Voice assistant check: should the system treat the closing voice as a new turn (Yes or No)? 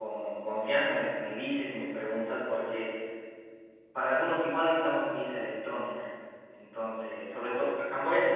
No